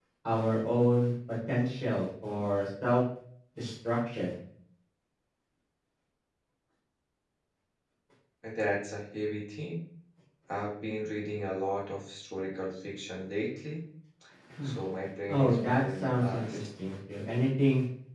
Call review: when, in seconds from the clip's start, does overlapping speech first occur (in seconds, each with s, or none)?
15.3 s